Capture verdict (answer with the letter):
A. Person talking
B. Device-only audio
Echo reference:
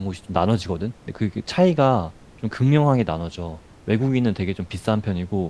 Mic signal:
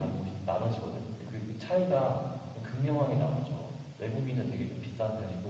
B